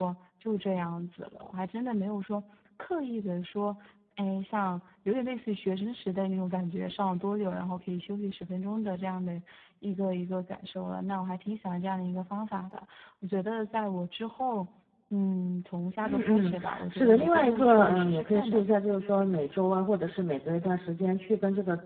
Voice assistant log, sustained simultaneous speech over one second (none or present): present